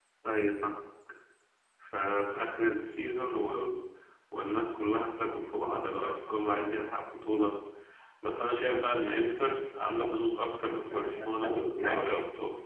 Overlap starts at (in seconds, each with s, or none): 10.9 s